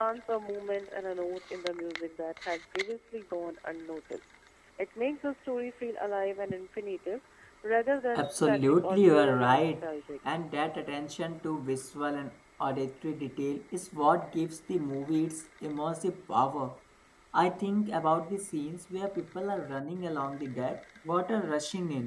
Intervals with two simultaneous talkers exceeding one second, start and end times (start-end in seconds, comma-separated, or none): 8.2-9.8